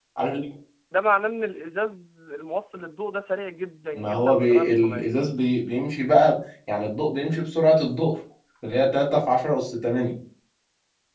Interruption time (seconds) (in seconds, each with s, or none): 4.0 s